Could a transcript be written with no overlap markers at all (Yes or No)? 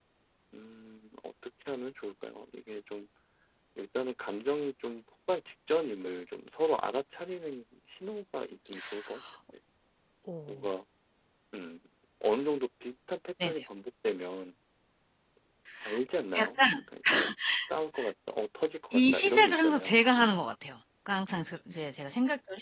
No